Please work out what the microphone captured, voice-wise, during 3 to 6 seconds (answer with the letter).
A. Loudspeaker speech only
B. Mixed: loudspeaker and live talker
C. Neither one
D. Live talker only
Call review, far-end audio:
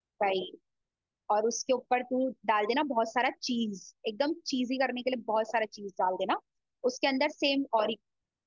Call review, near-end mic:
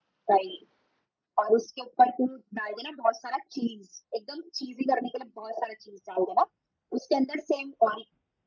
A